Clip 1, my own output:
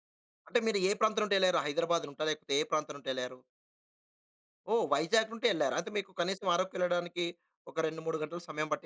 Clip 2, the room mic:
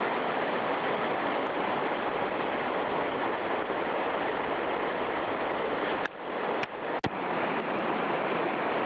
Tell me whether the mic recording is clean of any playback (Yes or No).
Yes